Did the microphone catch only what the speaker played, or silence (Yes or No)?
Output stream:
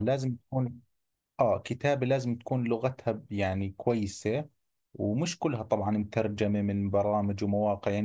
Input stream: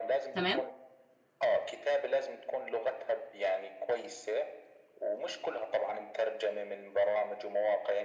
No